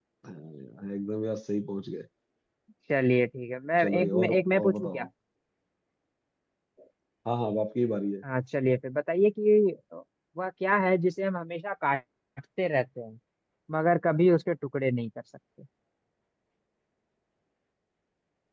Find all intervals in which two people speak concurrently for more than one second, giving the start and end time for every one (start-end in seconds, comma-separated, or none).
3.8-5.0